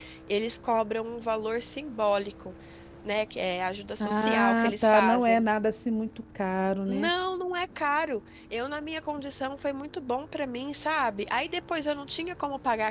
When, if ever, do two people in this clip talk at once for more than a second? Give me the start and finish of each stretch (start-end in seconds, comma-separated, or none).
4.0-5.4